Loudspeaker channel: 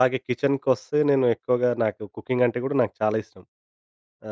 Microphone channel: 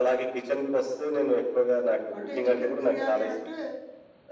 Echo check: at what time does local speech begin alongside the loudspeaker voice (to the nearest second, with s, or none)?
2 s